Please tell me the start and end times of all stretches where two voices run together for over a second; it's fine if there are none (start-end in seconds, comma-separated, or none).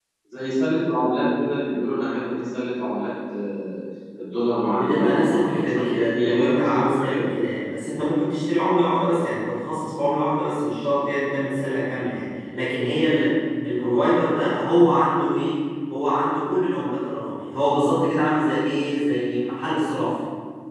4.7-7.2